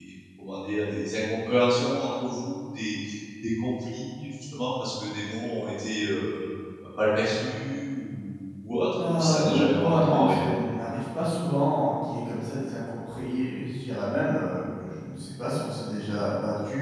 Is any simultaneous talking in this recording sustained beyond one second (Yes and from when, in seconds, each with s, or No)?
Yes, from 9.0 s